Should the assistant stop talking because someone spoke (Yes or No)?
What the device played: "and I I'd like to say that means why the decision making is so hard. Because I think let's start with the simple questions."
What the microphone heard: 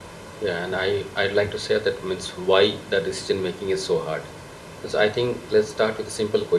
No